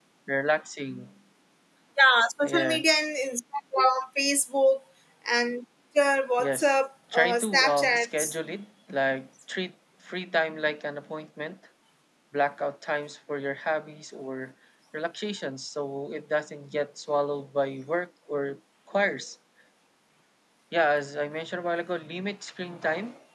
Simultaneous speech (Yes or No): Yes